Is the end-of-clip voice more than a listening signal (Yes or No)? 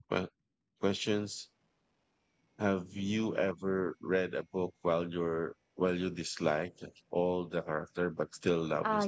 Yes